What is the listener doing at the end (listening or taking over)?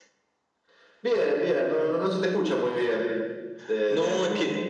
taking over